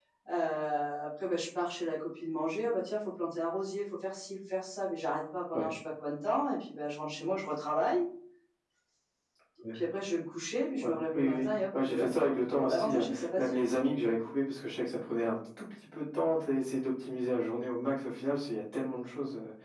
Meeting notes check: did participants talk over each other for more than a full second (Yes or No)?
Yes